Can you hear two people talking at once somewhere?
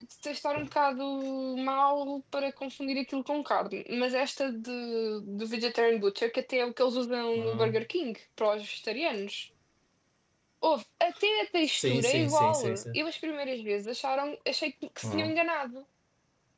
Yes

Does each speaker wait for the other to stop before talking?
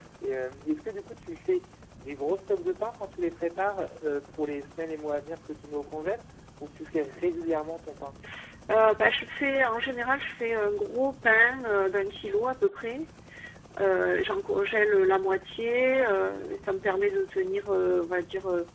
Yes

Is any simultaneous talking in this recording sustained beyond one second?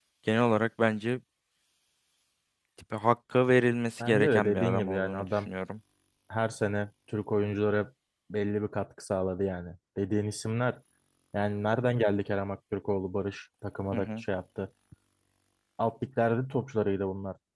Yes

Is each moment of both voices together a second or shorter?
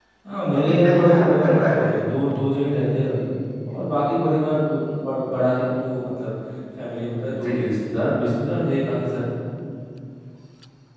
No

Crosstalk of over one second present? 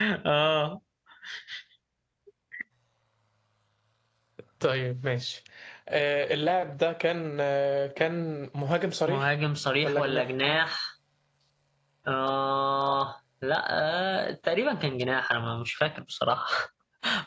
No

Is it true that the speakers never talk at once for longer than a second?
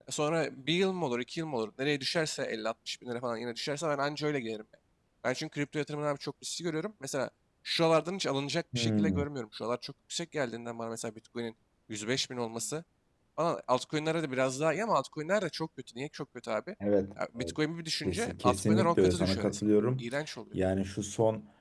No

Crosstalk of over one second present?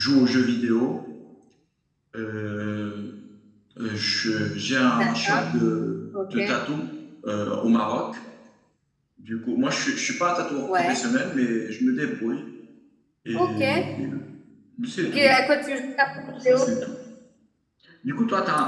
No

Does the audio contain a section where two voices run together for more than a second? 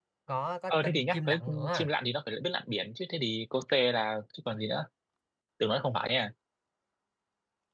Yes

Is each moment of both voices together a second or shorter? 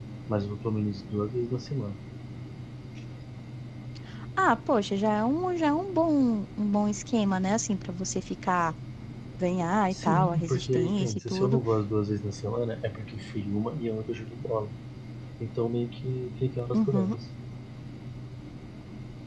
No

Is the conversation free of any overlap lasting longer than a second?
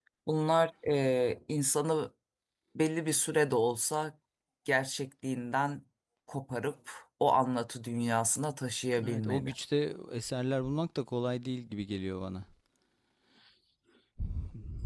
Yes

